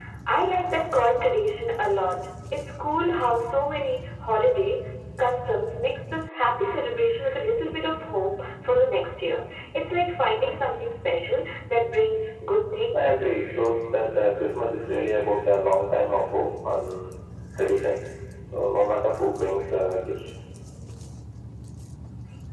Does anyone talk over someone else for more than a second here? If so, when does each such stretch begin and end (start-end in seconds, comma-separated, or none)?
none